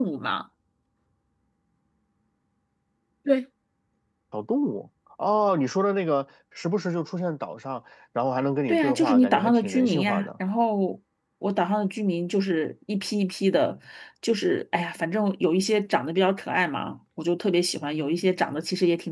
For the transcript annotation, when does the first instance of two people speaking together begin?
8.7 s

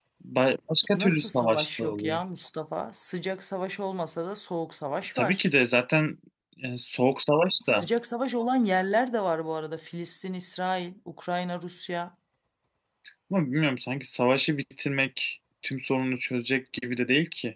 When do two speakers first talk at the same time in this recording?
0.9 s

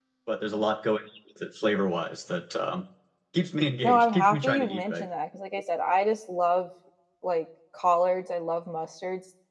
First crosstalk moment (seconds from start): 3.8 s

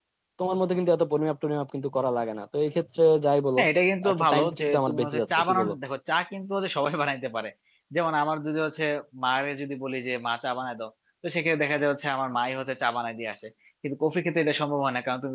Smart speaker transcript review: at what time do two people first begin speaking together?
4.1 s

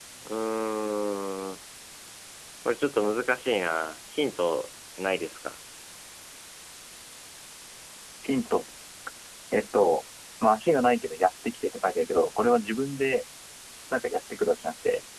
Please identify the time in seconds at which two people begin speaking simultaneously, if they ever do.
none

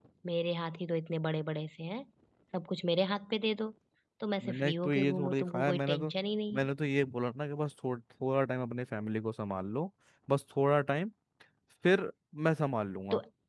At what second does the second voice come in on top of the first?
4.5 s

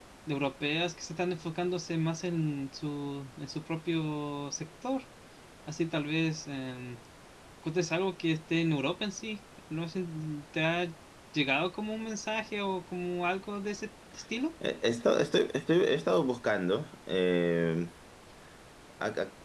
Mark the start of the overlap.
none

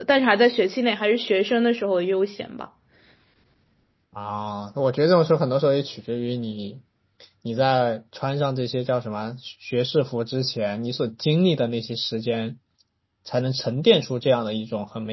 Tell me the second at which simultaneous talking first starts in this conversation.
none

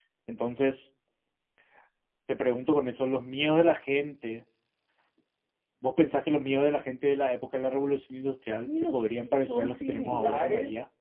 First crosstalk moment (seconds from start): 8.7 s

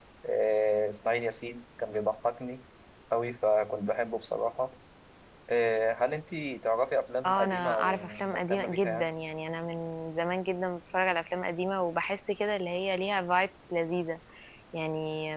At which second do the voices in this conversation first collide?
7.2 s

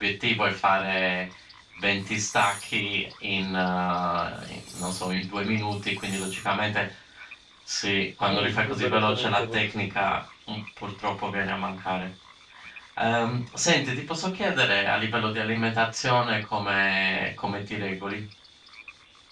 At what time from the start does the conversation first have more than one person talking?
8.2 s

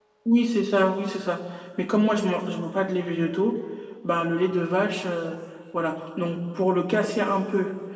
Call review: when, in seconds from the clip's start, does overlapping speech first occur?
none

